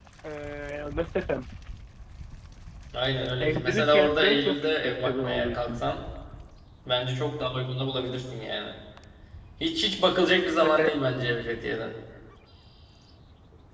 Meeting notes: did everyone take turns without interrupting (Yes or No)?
No